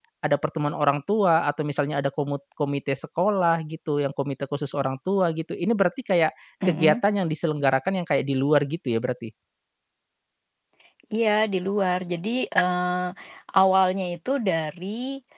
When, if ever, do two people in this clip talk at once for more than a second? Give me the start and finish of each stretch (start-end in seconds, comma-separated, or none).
none